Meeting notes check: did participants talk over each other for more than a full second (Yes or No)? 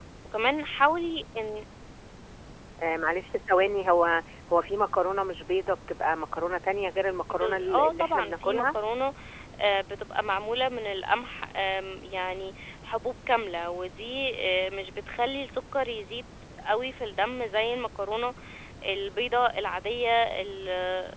Yes